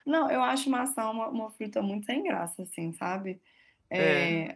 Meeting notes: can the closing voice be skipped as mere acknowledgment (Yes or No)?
Yes